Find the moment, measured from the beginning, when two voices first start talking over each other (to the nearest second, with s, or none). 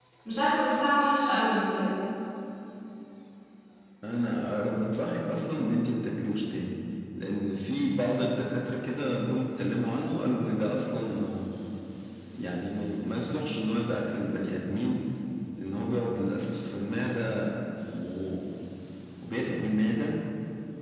none